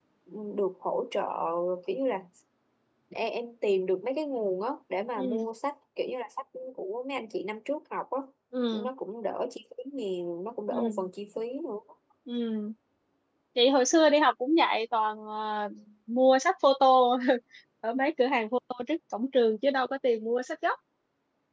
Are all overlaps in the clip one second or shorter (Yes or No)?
Yes